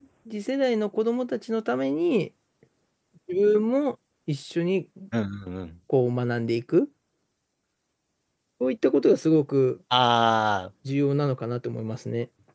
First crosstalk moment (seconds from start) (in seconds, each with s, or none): none